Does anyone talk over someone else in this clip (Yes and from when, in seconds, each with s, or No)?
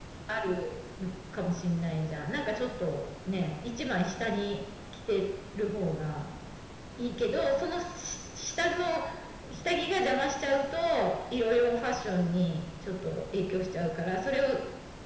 No